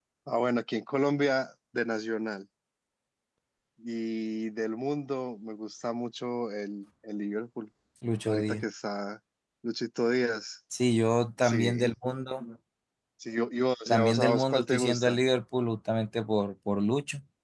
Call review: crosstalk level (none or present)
present